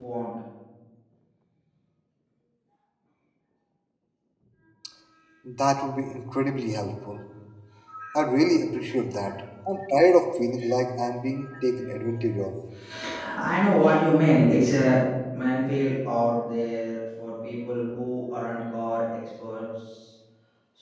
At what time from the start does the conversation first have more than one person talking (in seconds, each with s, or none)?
none